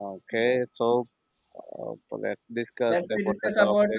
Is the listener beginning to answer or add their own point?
Yes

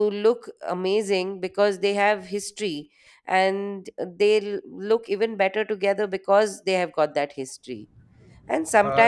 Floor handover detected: No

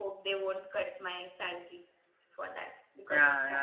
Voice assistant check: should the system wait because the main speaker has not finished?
No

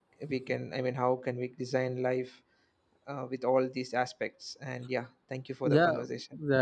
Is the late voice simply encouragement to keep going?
No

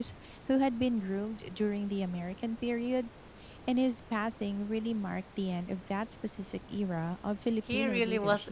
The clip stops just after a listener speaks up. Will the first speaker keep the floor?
No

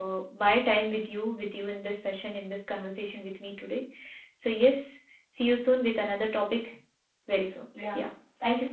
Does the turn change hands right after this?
Yes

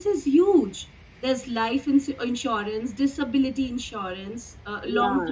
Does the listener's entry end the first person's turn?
Yes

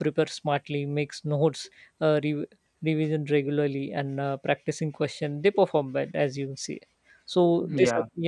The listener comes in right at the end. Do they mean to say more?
No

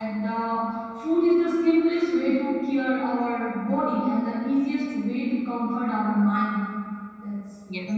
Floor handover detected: Yes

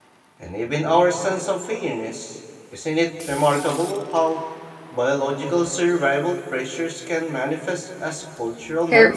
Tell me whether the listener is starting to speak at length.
Yes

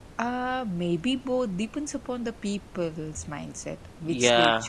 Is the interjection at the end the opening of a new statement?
Yes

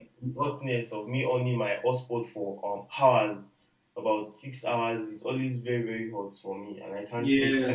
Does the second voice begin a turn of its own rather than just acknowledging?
Yes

